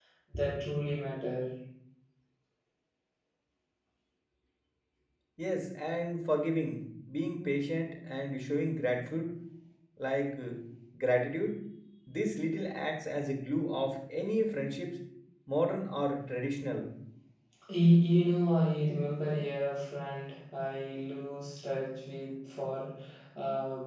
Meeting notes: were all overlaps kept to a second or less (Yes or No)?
Yes